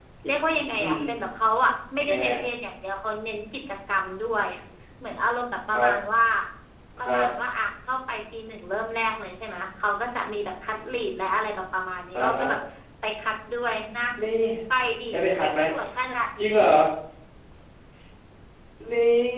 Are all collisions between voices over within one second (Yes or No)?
Yes